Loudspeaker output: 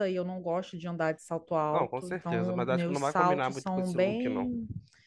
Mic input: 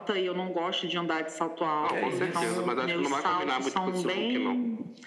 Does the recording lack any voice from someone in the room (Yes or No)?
No